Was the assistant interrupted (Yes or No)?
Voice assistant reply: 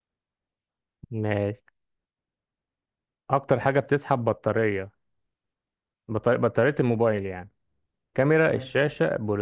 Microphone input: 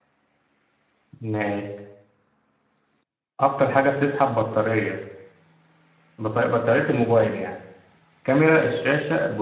No